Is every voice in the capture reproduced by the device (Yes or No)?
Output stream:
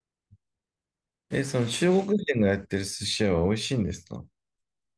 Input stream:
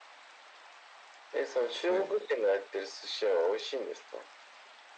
No